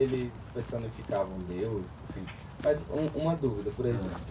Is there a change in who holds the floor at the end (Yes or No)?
No